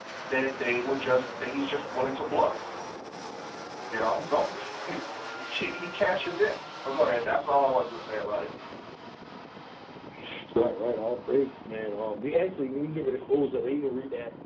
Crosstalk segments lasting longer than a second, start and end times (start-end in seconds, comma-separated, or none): none